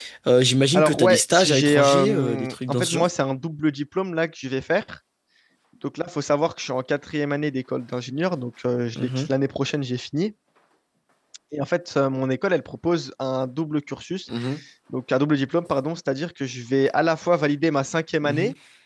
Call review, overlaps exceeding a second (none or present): present